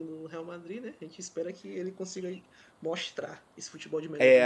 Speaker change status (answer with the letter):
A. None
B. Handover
B